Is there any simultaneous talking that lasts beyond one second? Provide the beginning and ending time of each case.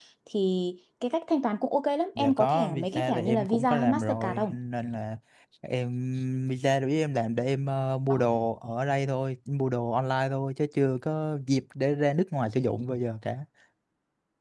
2.2-4.5

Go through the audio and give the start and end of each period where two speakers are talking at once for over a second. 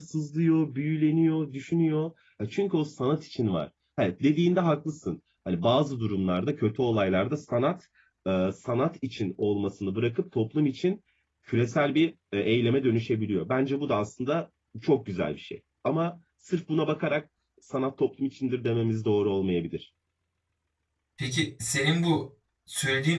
none

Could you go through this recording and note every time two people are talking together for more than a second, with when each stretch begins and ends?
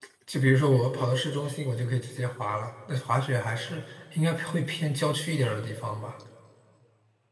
none

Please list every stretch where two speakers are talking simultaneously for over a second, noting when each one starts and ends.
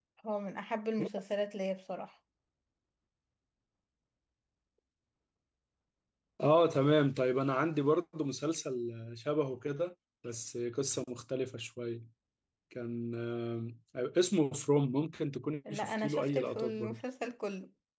15.7-17.0

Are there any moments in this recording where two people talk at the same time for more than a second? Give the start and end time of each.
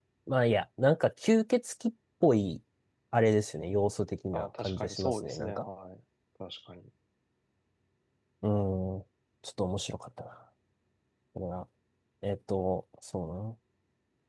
4.3-5.7

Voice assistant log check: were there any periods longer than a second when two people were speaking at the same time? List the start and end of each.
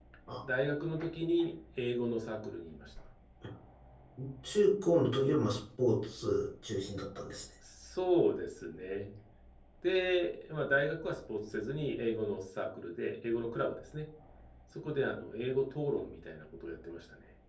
none

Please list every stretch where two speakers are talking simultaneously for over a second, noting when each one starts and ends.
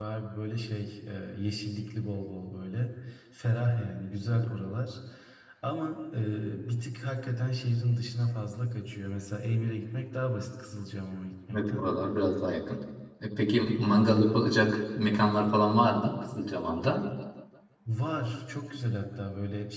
none

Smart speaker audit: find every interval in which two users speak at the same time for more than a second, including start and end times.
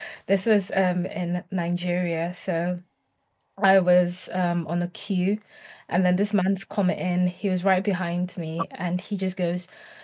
none

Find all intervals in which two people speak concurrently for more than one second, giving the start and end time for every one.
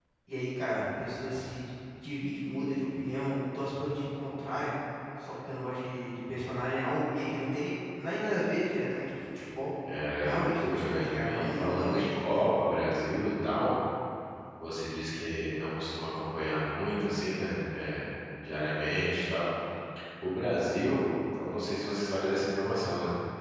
10.2-12.4

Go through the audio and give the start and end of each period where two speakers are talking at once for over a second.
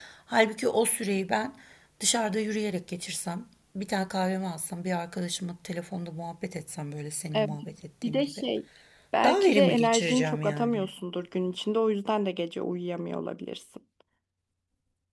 9.2-10.9

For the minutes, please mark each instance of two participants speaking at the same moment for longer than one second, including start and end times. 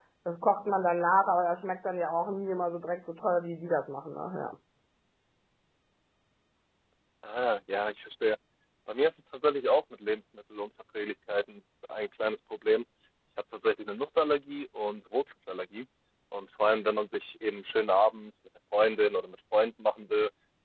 none

